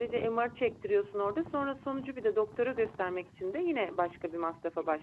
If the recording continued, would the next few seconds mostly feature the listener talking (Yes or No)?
Yes